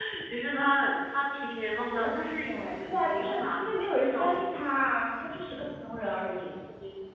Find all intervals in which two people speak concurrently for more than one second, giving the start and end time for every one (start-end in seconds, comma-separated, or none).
1.8-4.3